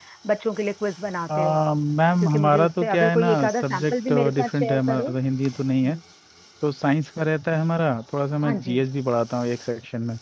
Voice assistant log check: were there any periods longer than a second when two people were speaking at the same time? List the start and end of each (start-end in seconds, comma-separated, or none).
2.2-5.1